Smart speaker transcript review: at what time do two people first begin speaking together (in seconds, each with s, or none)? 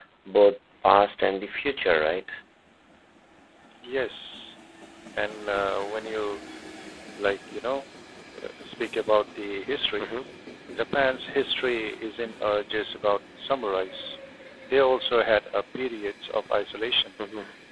none